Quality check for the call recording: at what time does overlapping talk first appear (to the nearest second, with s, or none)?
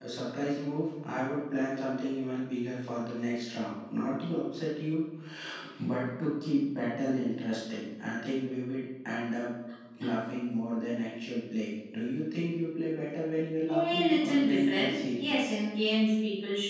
14 s